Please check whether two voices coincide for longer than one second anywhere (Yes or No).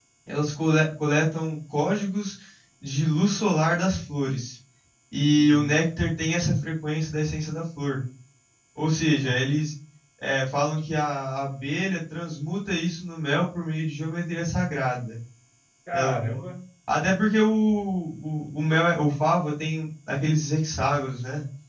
No